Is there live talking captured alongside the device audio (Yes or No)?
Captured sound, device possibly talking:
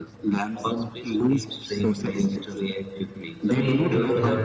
Yes